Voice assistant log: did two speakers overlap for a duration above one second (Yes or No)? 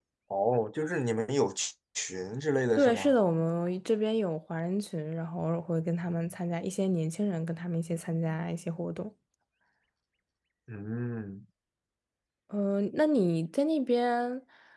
No